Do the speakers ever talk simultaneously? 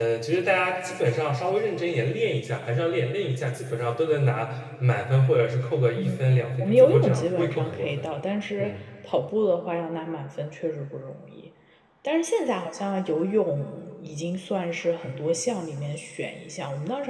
Yes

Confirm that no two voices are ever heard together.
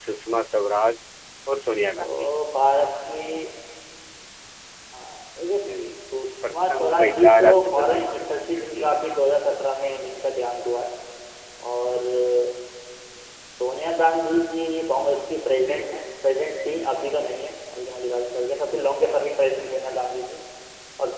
No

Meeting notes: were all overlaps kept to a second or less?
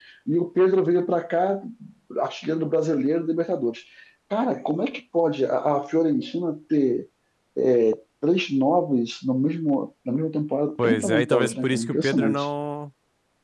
No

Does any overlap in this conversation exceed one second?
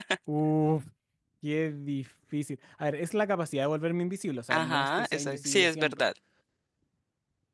Yes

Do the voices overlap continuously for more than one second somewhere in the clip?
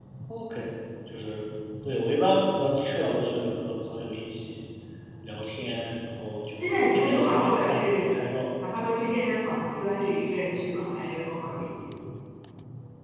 Yes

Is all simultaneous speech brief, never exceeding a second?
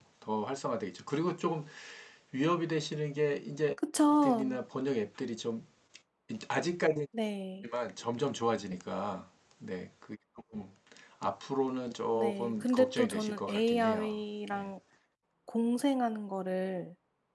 No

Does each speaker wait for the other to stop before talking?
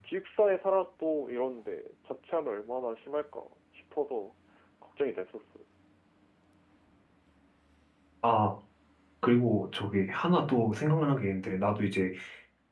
Yes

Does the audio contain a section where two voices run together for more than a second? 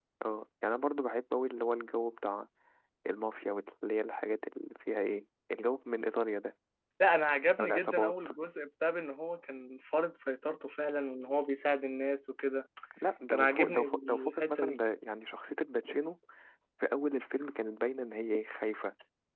Yes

